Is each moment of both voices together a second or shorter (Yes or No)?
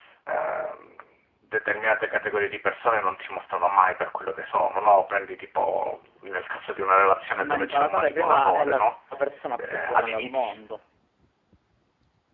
No